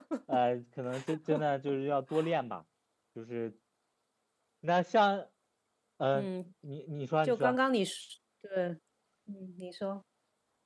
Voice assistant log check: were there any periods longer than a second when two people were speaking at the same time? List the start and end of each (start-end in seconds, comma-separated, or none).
none